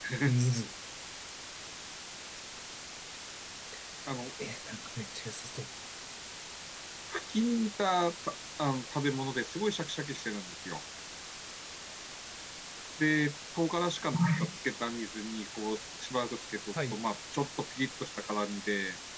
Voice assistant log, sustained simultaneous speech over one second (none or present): none